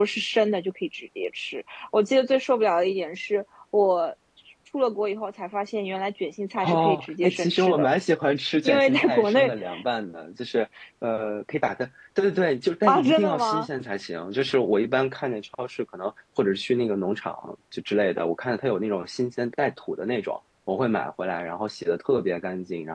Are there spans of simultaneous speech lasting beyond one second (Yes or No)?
Yes